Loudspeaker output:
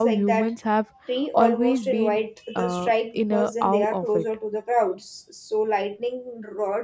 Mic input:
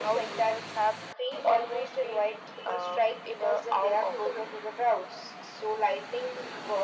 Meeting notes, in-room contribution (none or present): none